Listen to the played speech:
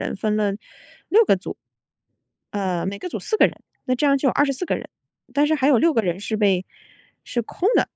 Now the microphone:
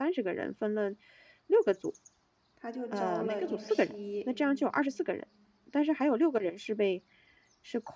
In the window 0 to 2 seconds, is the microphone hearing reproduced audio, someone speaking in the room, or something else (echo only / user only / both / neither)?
echo only